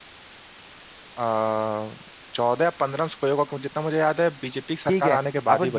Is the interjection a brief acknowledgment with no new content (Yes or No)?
No